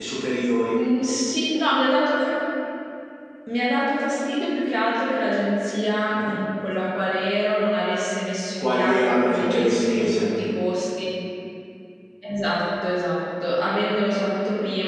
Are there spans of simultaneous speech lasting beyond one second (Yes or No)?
Yes